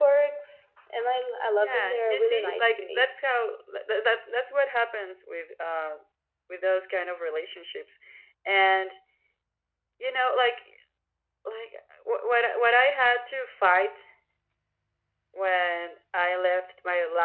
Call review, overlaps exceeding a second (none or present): present